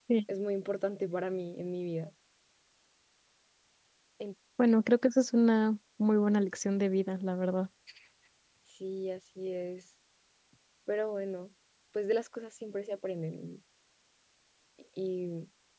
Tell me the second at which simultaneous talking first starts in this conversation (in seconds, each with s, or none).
none